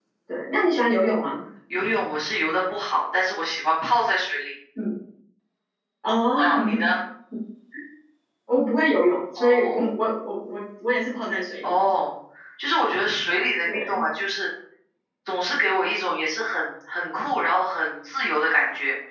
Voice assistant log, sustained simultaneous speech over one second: none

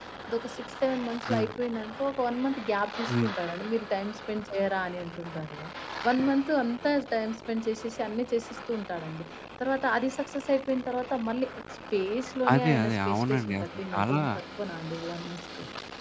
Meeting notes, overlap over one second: present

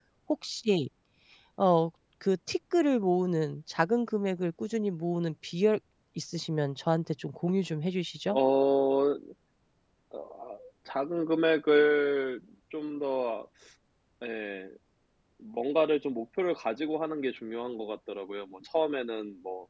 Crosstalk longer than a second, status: none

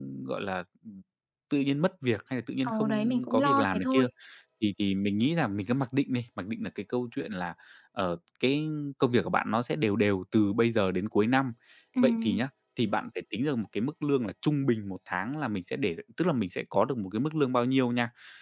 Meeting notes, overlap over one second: present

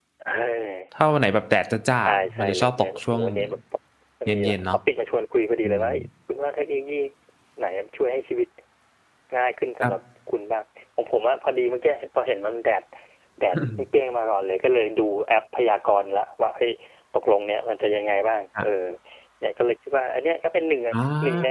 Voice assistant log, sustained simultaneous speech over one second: present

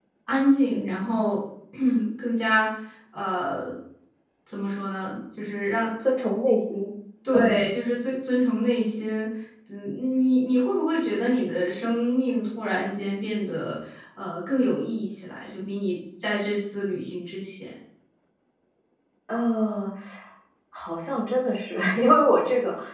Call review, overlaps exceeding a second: none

